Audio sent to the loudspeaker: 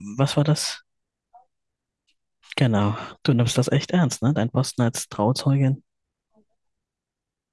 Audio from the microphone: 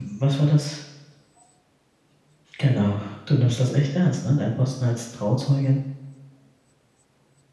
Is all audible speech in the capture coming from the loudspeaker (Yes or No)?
Yes